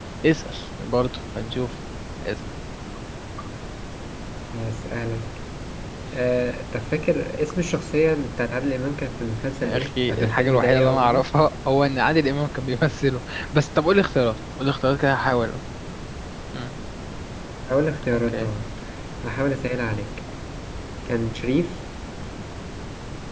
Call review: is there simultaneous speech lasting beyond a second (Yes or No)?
Yes